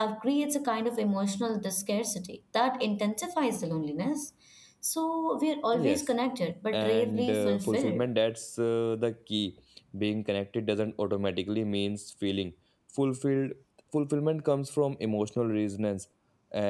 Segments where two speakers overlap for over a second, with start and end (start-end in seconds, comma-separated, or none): 6.7-8.0